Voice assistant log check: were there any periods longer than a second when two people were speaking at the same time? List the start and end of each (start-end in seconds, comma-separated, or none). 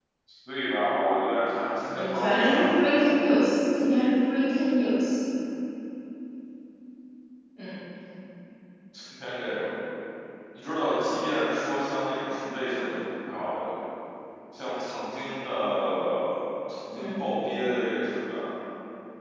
1.9-3.2